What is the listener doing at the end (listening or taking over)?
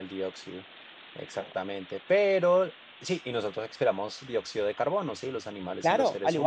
taking over